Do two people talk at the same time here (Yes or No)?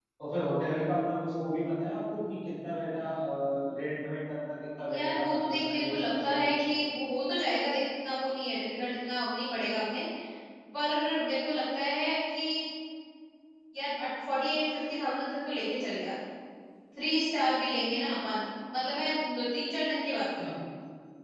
Yes